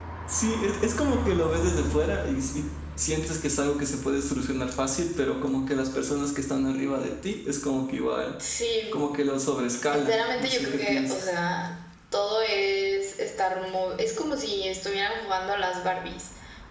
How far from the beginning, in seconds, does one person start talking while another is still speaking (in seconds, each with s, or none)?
9.8 s